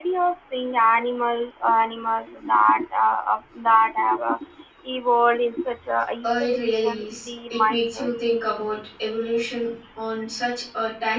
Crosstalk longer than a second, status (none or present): present